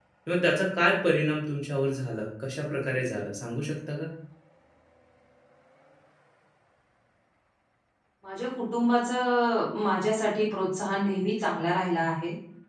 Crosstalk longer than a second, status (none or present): none